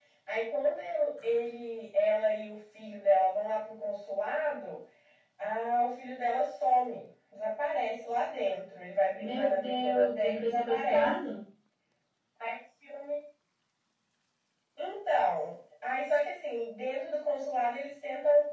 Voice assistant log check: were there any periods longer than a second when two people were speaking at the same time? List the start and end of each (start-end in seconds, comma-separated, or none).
9.2-11.1